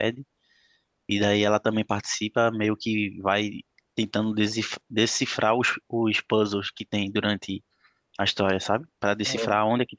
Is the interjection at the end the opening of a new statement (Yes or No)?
No